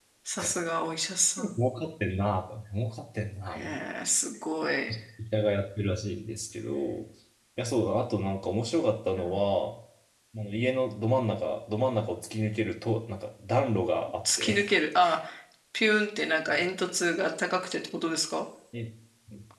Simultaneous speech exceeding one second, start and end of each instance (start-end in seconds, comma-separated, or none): none